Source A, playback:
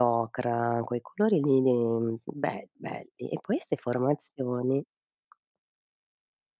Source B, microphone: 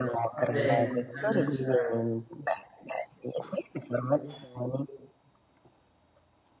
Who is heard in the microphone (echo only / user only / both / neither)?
both